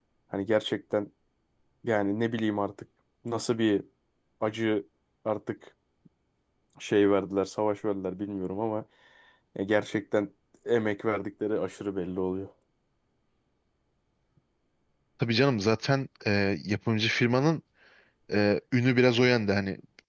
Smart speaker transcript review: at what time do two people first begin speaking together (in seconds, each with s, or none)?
none